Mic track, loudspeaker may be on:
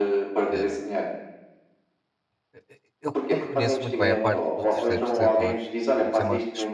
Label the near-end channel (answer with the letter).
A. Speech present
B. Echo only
A